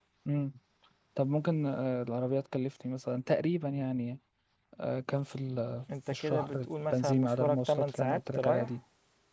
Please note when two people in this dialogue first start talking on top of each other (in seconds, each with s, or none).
5.9 s